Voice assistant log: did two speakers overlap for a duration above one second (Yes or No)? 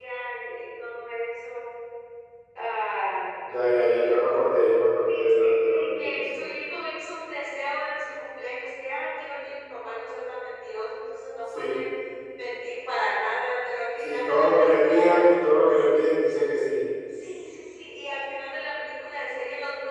Yes